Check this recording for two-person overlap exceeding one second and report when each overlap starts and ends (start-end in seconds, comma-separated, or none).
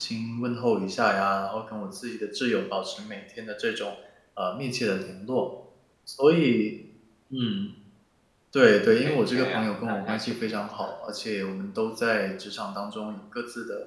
9.0-10.8